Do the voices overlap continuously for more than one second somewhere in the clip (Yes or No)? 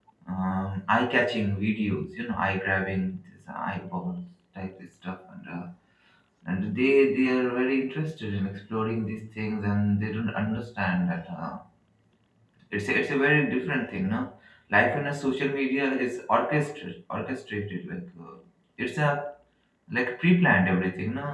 No